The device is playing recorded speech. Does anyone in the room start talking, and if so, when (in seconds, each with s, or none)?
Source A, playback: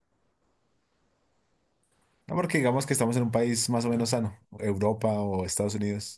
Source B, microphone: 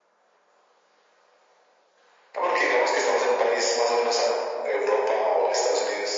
none